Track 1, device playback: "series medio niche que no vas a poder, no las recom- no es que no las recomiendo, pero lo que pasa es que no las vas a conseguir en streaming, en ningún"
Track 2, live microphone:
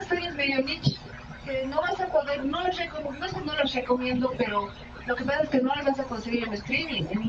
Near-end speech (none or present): none